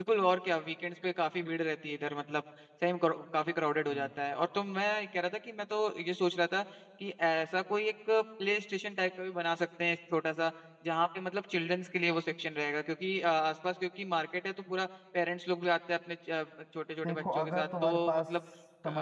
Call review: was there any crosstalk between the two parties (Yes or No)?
Yes